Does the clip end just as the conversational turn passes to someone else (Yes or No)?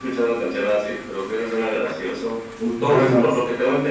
No